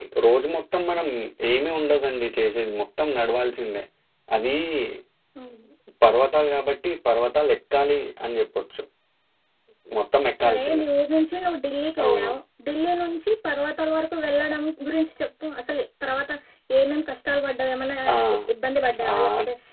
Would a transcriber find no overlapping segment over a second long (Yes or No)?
Yes